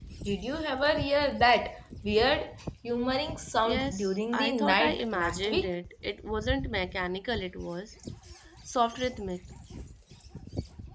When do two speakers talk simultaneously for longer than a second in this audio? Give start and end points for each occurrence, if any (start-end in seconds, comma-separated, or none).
3.6-5.7